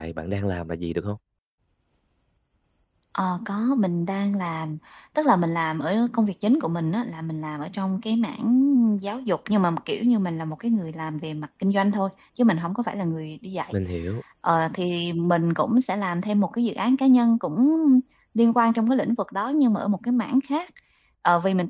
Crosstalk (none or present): none